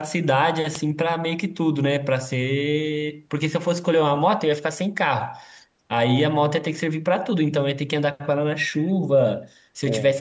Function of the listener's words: listening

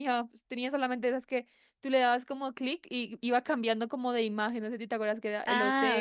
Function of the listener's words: taking over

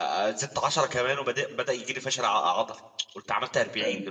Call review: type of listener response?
listening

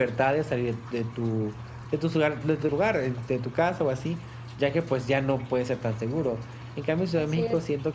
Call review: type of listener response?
listening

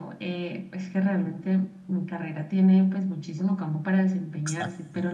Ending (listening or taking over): listening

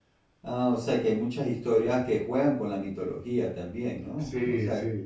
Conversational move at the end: taking over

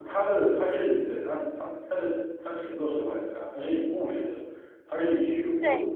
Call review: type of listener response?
listening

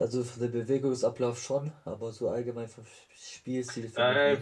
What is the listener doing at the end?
taking over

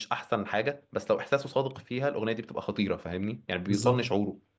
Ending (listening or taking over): taking over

